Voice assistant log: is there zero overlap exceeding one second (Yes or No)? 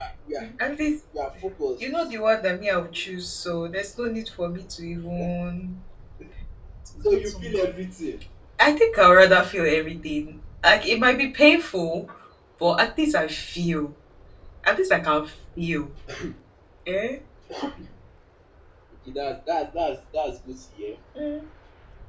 Yes